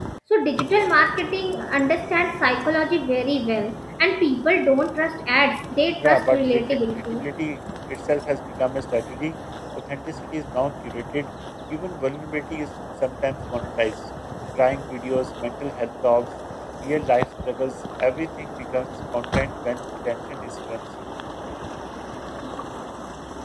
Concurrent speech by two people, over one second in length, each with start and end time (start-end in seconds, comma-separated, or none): 6.0-7.3